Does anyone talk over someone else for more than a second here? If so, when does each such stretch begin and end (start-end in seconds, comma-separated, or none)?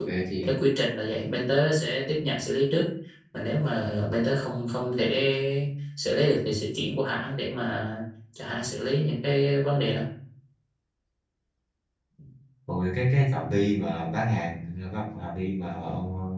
none